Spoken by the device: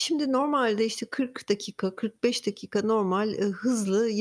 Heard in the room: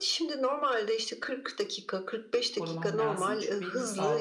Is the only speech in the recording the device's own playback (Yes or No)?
No